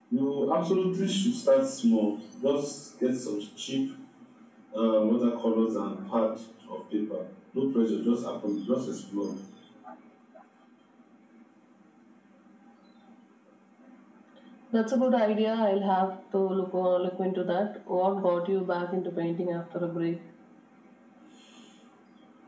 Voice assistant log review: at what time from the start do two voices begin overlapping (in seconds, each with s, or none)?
none